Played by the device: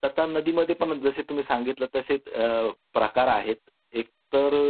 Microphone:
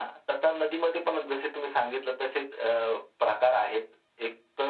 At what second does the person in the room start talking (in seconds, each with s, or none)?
none